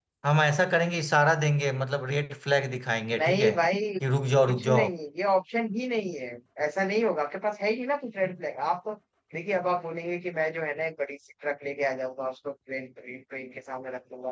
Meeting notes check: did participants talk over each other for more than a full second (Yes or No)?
No